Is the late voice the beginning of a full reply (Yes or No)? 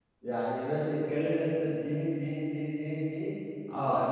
No